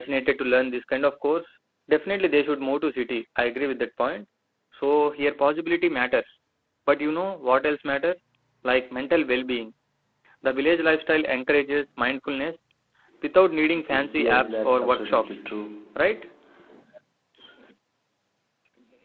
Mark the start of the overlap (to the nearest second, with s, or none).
14 s